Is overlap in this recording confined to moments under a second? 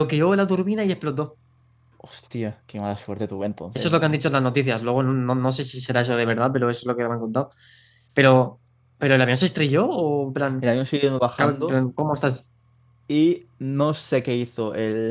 Yes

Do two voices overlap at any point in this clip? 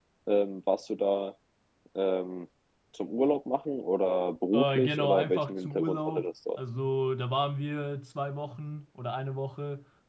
Yes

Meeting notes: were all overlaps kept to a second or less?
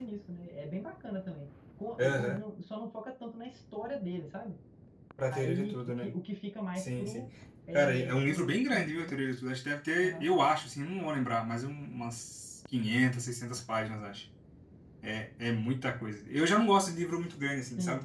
No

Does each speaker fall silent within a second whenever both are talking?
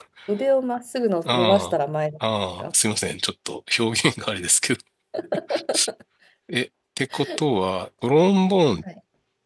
Yes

